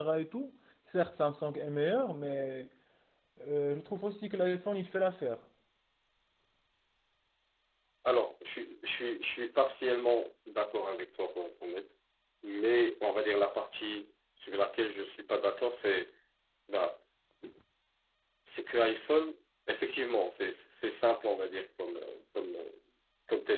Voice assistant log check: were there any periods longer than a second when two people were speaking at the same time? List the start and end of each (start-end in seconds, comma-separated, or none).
none